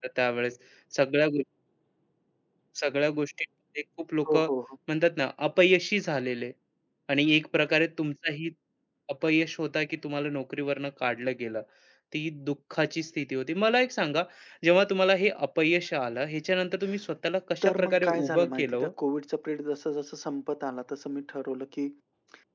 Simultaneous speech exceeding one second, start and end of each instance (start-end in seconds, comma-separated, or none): 17.6-18.9